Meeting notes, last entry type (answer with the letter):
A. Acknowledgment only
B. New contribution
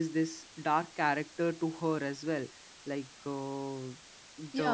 B